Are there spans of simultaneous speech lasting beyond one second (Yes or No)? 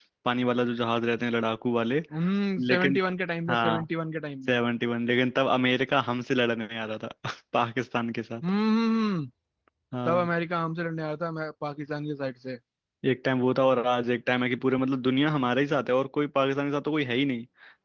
No